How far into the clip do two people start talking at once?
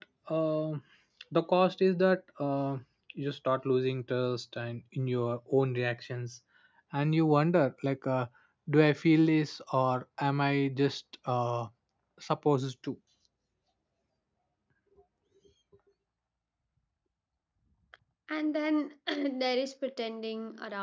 none

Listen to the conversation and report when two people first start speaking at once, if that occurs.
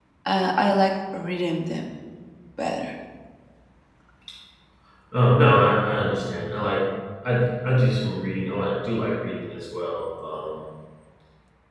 none

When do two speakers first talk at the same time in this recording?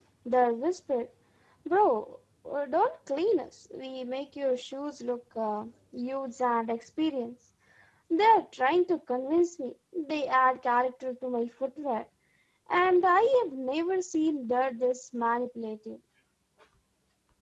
none

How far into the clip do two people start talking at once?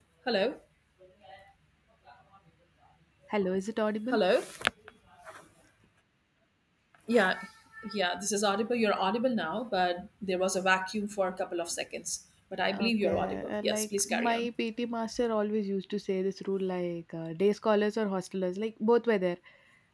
12.7 s

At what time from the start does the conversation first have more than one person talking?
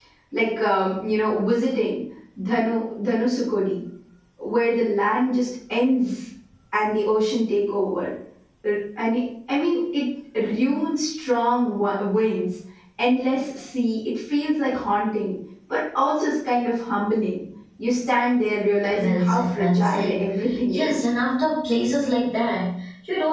18.9 s

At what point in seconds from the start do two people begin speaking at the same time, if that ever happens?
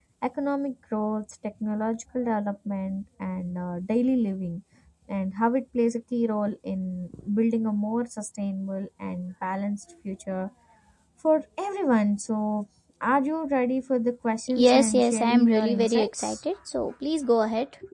14.5 s

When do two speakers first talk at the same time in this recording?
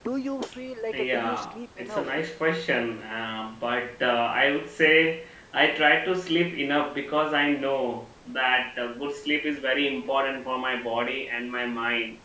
0.9 s

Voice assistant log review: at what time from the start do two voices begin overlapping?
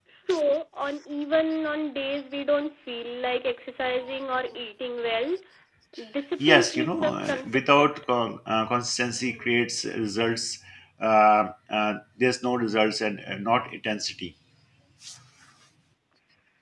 6.4 s

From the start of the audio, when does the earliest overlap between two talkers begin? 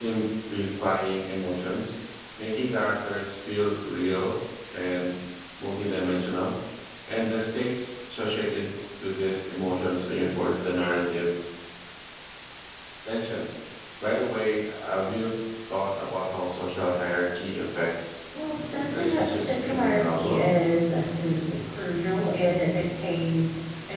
18.9 s

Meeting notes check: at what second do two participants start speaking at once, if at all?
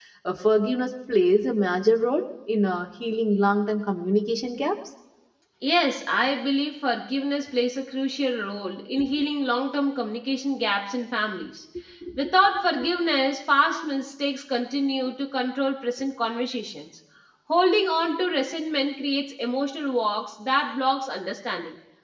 none

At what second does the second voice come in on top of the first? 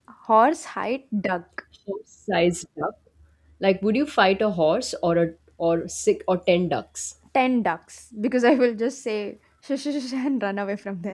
none

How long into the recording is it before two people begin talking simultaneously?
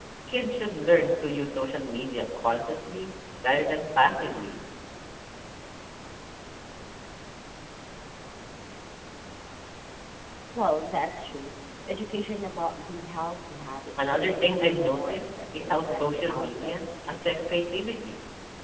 14.0 s

